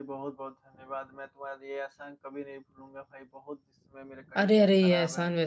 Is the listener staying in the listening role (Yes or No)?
No